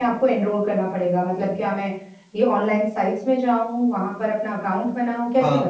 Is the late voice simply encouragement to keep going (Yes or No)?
No